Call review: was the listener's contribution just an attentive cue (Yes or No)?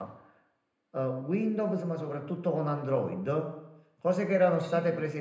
Yes